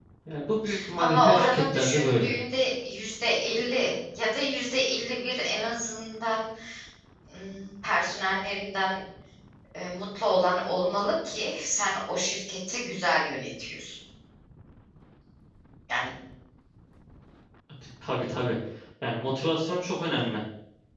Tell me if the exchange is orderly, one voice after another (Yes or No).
No